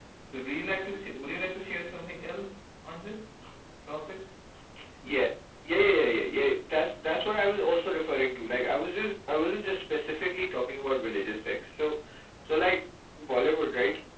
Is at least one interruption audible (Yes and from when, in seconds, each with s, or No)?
No